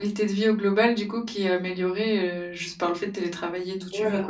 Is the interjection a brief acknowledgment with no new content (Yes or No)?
No